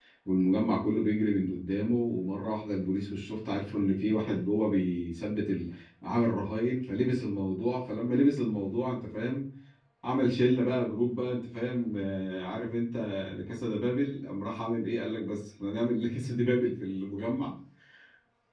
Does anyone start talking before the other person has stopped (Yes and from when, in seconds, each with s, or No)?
No